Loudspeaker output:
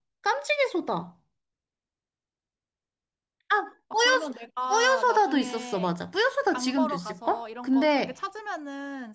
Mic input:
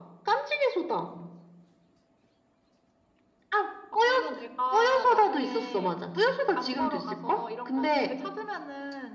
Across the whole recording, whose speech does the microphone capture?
echo only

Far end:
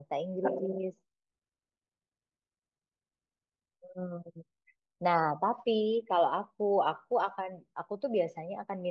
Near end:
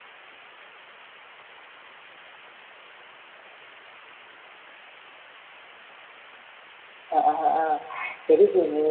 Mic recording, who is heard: user only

